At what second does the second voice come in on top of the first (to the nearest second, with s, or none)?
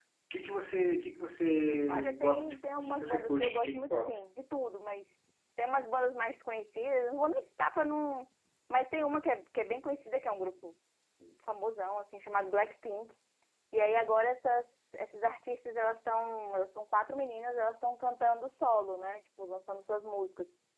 2 s